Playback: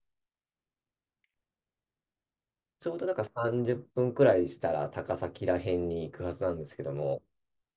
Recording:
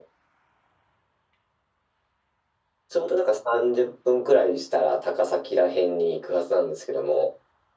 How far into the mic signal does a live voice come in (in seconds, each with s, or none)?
none